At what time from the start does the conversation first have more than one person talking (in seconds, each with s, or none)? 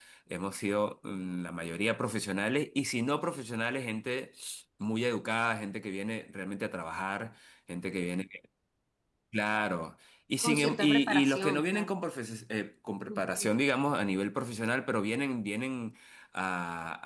10.4 s